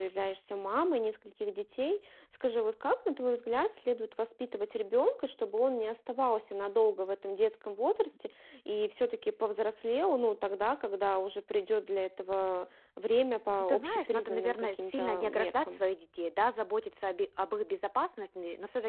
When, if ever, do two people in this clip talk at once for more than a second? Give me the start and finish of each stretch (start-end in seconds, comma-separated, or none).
13.6-15.8